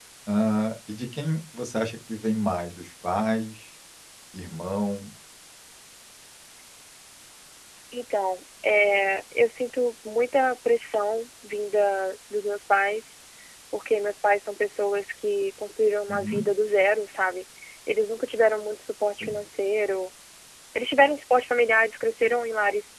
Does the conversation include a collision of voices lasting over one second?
No

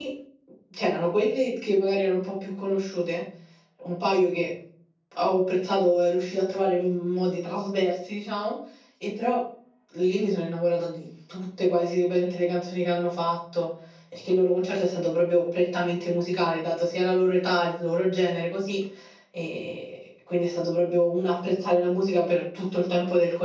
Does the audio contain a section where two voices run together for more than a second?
No

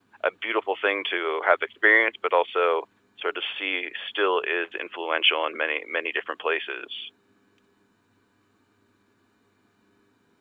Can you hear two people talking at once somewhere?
No

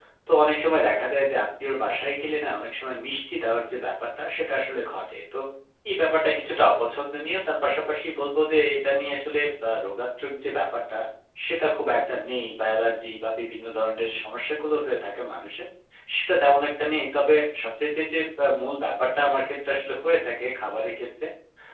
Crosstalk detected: No

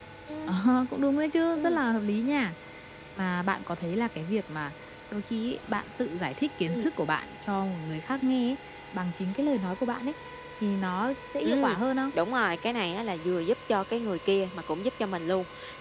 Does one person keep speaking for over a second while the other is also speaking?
No

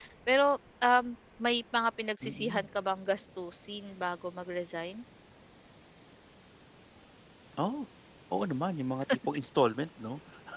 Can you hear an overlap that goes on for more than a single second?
No

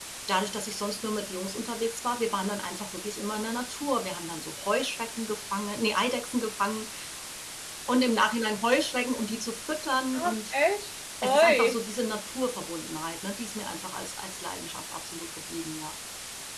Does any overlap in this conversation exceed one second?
No

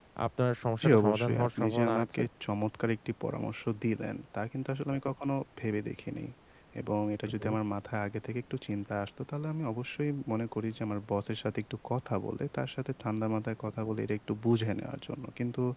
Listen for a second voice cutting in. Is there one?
Yes, from 0.8 s

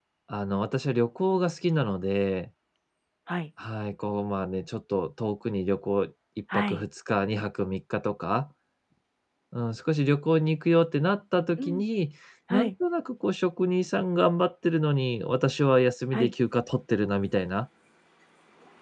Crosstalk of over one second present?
No

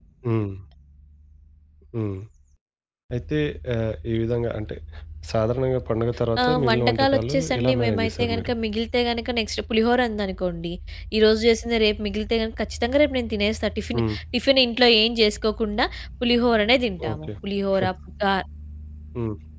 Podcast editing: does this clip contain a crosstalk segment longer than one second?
Yes, from 6.4 s

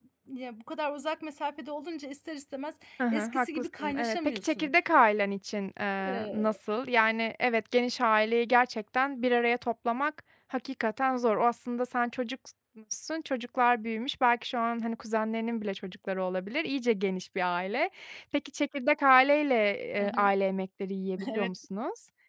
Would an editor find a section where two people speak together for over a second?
Yes, from 3.1 s

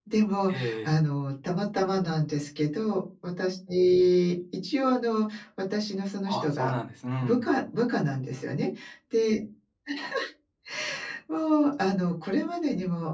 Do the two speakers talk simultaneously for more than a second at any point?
No

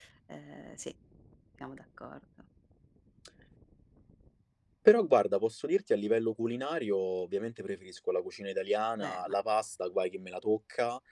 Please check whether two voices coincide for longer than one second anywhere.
No

